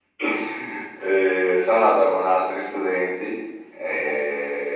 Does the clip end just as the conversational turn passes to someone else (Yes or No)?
No